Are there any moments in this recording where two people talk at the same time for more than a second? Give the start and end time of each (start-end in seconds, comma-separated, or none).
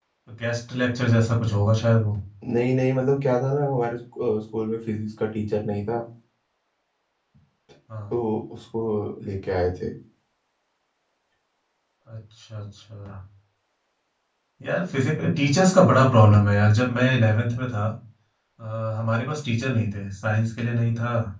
none